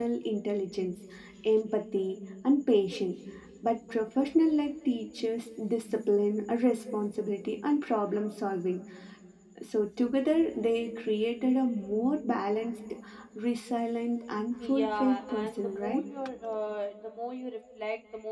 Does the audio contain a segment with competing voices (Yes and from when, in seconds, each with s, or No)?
Yes, from 14.6 s